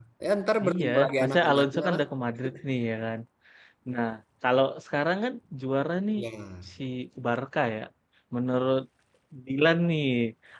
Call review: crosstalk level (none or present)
present